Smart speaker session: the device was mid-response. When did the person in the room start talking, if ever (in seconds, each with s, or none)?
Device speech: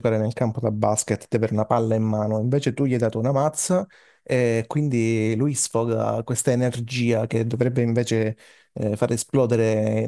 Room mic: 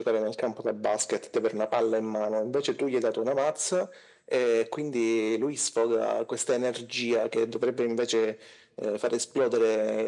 none